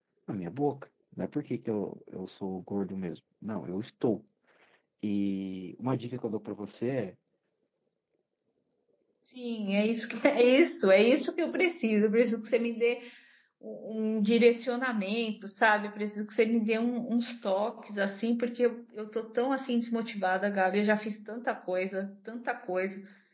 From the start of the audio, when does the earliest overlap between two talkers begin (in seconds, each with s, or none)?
none